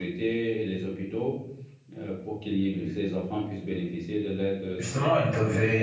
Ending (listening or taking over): taking over